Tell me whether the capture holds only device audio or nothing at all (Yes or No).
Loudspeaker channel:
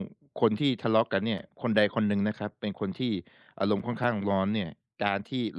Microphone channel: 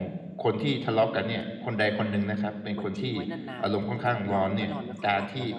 No